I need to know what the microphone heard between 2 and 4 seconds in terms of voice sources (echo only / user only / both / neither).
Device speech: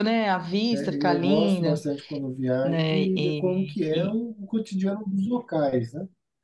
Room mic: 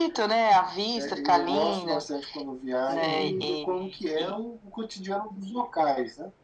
both